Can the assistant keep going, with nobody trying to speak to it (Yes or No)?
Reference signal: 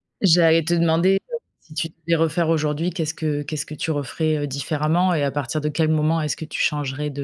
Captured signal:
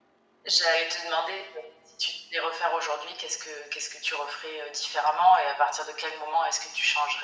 Yes